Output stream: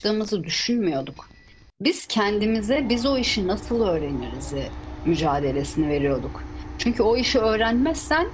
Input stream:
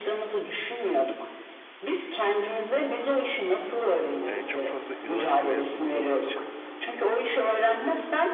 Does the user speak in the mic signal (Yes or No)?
Yes